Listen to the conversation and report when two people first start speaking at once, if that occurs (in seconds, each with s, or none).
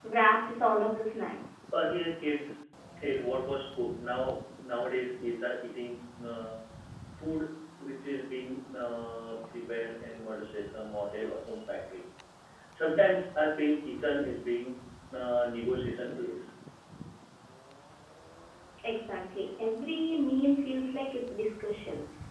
none